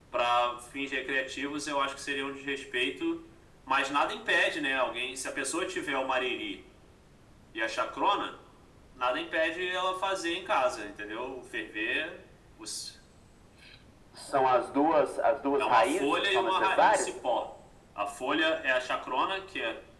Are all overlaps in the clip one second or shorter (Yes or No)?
No